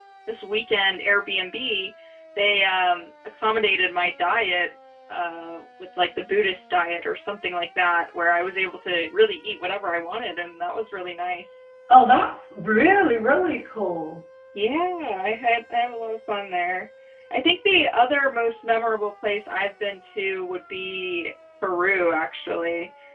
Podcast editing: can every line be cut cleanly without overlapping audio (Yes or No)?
Yes